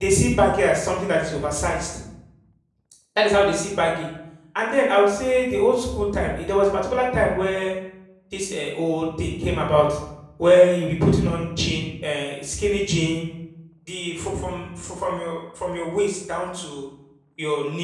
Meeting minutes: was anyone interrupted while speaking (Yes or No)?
No